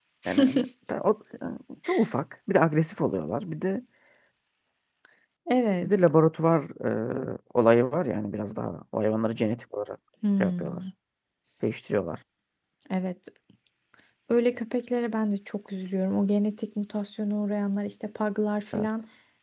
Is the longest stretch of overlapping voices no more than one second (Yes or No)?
Yes